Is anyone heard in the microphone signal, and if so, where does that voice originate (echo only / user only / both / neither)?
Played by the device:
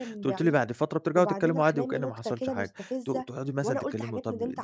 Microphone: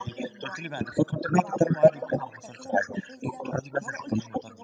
echo only